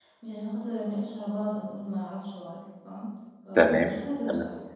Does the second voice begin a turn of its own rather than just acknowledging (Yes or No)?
Yes